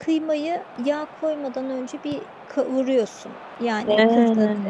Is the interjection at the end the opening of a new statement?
No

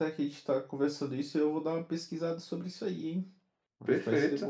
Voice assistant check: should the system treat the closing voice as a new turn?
Yes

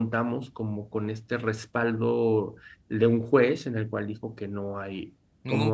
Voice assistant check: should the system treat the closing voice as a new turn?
No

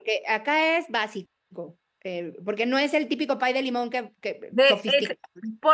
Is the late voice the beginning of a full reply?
Yes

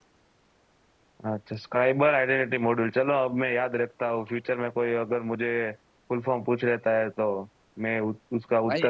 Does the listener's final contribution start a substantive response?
Yes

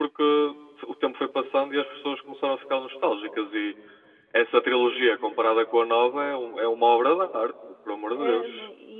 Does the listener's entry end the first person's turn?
Yes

